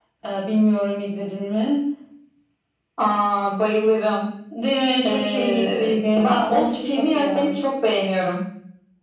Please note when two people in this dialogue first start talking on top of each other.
5.0 s

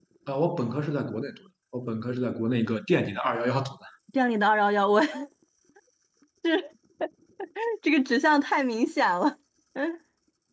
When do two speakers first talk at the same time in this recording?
none

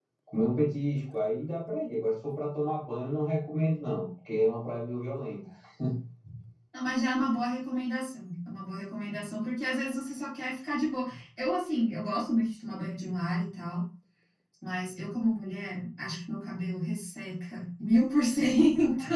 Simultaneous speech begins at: none

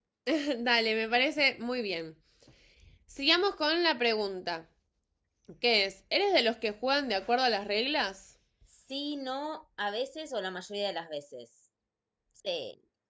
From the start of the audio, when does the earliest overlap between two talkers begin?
none

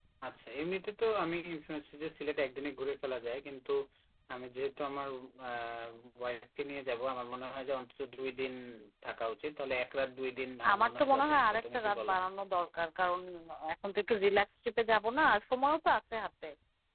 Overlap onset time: 10.6 s

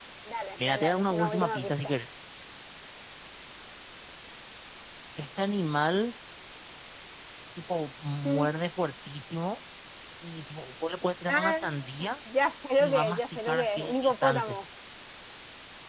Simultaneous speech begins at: 0.6 s

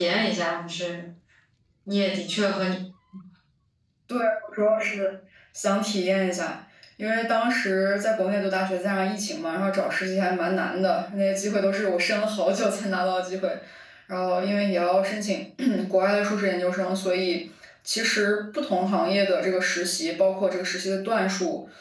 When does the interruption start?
none

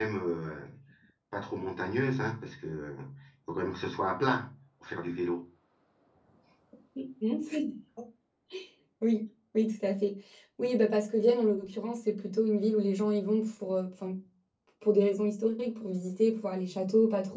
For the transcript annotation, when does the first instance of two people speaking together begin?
none

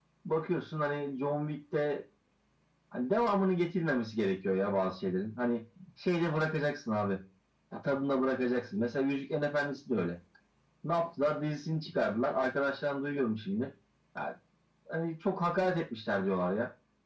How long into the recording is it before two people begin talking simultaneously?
none

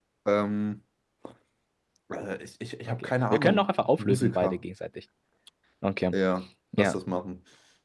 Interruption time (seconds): 2.9 s

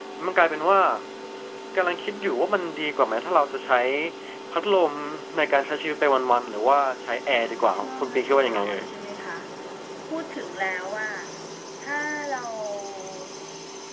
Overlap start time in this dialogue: 7.3 s

